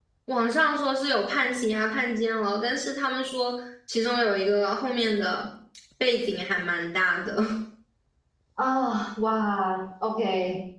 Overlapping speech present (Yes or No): No